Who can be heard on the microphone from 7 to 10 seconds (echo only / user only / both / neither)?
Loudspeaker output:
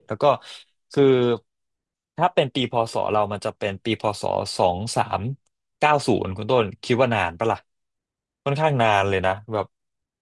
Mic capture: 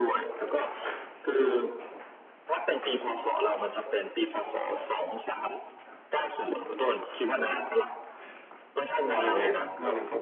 both